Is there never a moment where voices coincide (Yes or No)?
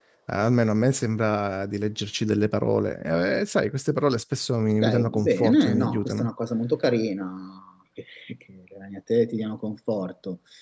No